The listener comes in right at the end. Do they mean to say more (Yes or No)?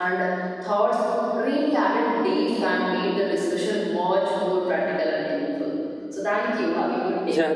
Yes